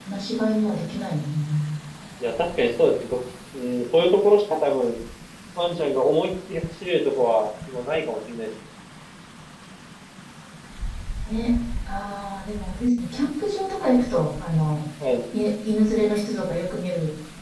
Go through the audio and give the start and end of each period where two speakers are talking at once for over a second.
none

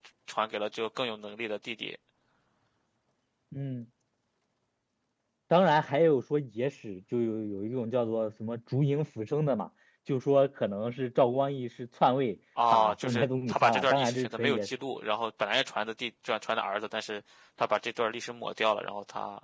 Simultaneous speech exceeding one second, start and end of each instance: 12.7-14.7

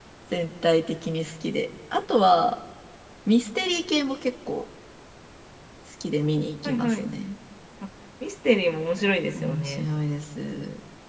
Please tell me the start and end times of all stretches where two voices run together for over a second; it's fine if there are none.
none

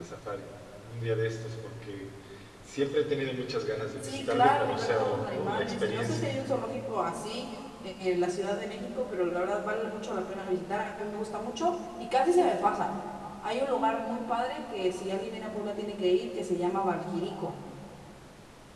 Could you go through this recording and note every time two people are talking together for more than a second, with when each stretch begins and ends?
4.0-6.3

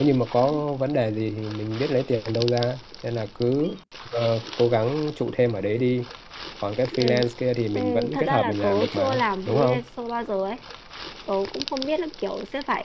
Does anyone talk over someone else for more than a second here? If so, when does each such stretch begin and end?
7.7-9.8

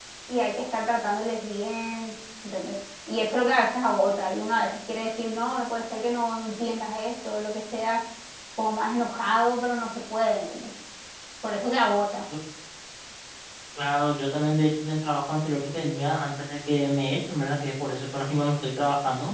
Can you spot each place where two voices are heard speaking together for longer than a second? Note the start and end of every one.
none

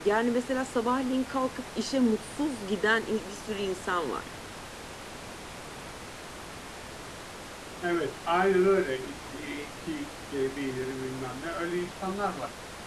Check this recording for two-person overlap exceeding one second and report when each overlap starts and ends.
none

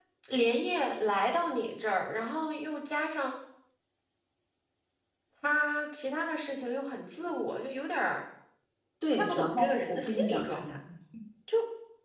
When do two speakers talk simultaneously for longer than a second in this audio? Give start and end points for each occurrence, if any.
9.1-10.6

